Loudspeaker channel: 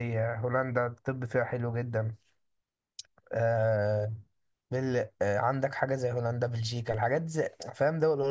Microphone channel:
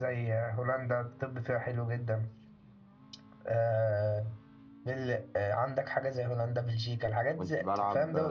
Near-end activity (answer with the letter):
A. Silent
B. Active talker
B